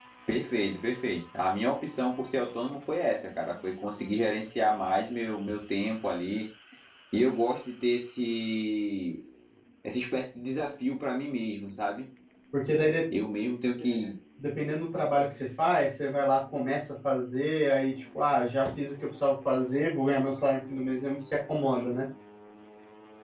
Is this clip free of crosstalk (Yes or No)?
Yes